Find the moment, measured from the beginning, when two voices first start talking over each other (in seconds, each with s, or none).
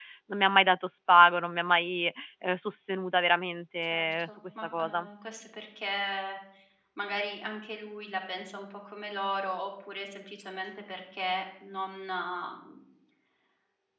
3.9 s